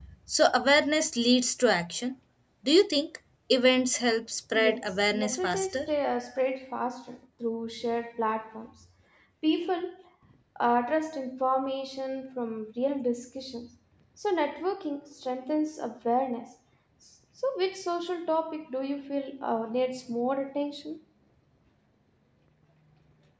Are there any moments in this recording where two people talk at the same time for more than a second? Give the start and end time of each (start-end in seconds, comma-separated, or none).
4.5-5.9